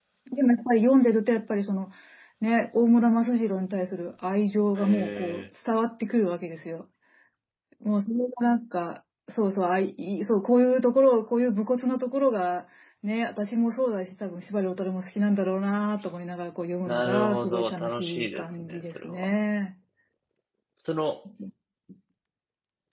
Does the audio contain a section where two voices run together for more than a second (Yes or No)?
Yes